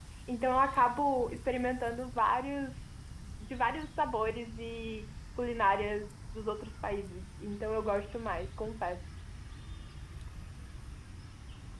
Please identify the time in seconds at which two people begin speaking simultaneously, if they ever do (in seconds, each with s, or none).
none